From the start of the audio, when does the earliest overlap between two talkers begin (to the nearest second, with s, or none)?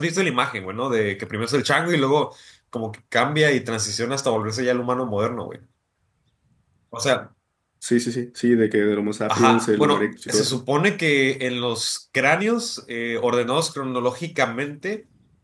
9 s